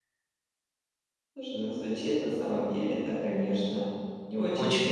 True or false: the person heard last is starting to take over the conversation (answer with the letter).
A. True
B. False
B